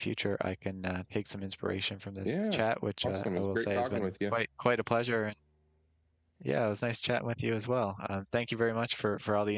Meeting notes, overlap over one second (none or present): present